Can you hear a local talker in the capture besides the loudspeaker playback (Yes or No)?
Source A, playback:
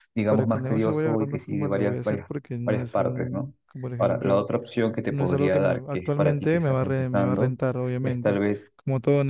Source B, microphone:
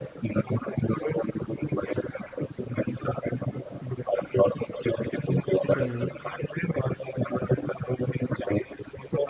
Yes